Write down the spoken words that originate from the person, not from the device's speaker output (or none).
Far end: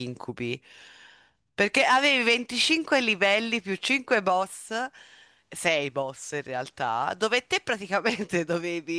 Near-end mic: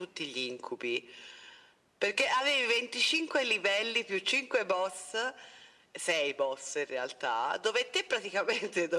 none